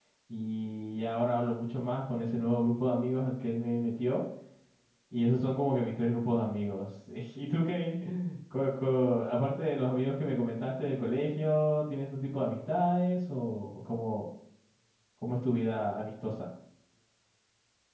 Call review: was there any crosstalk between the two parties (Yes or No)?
No